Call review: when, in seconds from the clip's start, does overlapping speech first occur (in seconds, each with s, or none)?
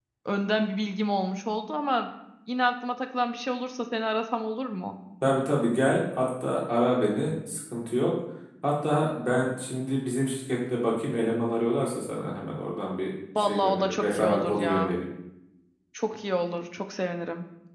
13.3 s